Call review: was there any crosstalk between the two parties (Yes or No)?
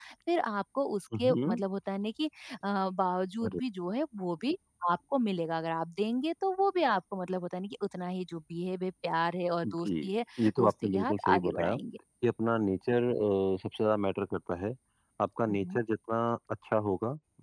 Yes